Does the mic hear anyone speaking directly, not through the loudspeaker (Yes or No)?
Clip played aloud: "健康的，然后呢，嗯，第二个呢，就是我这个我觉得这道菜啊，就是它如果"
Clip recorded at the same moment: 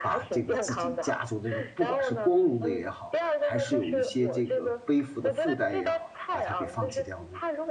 Yes